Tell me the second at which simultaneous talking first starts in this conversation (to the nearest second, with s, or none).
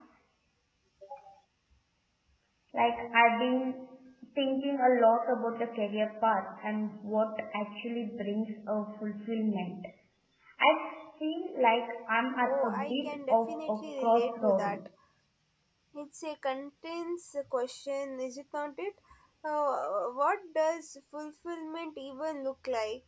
12 s